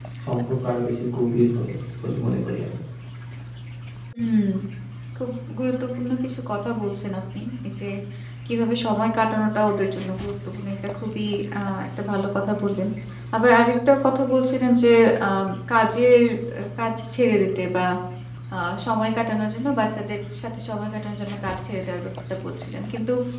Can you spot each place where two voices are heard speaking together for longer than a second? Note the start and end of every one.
none

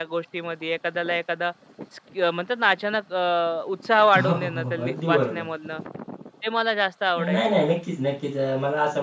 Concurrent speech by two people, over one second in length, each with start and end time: 4.2-5.4

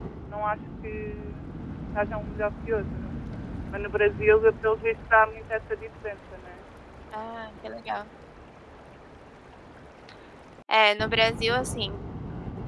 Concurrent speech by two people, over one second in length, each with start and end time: none

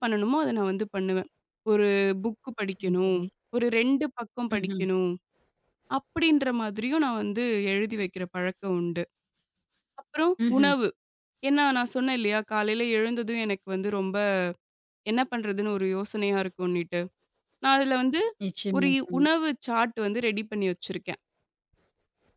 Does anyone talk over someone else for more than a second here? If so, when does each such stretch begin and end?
none

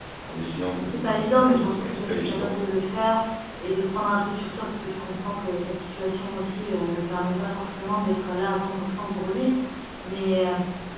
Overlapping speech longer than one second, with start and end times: 0.9-2.7

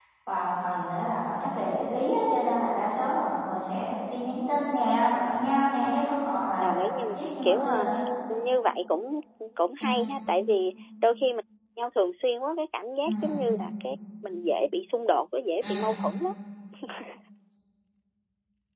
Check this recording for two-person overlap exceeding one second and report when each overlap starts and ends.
6.6-7.9

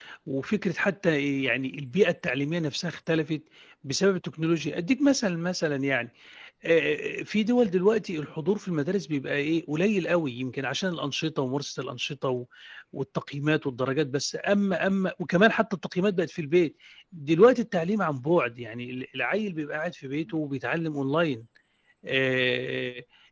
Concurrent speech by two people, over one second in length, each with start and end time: none

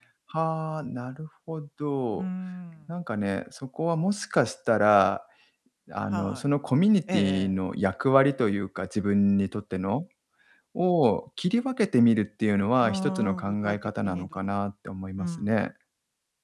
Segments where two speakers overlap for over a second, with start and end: 12.8-14.4

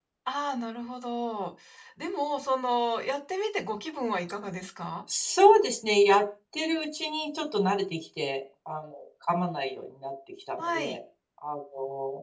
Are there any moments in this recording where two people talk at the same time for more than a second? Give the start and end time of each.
none

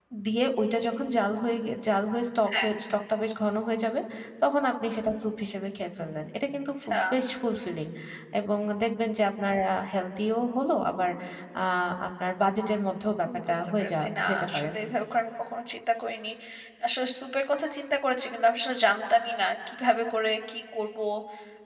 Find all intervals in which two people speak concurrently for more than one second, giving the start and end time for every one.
13.2-14.7

